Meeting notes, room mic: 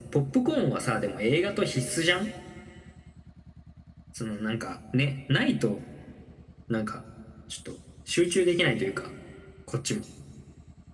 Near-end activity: none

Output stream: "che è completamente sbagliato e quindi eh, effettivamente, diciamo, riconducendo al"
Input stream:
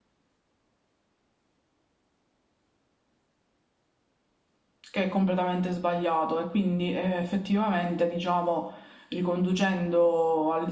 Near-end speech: none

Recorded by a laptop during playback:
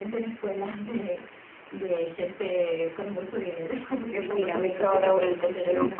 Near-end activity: present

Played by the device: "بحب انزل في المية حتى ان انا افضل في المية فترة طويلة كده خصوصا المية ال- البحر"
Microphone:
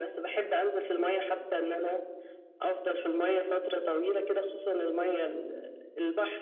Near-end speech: none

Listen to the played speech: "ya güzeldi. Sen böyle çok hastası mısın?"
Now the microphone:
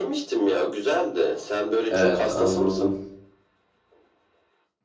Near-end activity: present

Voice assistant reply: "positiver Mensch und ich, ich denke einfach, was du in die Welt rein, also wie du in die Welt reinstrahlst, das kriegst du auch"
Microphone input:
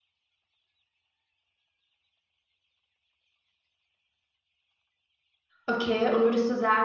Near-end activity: present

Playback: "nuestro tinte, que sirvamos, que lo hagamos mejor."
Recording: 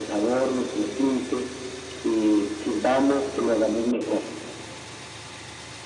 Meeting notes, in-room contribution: none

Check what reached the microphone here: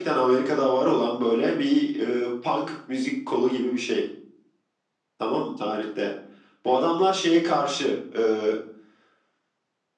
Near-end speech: none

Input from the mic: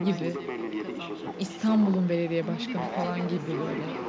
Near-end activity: present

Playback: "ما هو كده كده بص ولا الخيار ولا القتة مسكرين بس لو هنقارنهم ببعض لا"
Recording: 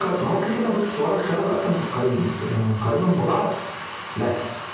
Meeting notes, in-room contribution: none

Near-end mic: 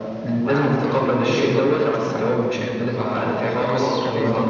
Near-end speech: present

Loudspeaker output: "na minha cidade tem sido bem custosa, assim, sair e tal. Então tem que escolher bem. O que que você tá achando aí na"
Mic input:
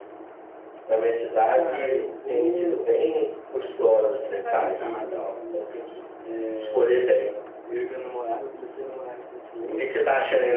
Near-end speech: present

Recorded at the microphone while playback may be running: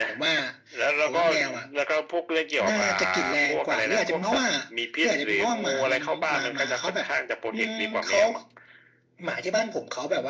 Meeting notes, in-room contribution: none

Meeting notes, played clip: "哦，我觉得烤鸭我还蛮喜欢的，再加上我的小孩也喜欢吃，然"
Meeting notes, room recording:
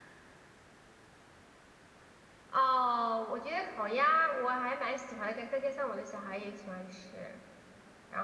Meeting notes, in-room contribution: none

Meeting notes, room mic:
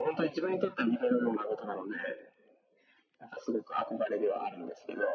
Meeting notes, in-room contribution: none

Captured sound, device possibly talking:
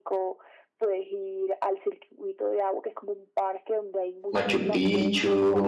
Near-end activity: present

